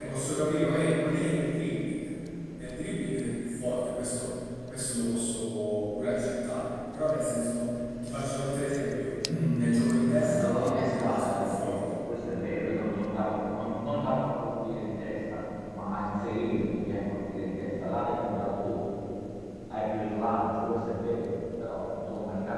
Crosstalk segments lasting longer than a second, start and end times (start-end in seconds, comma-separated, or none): 10.2-11.8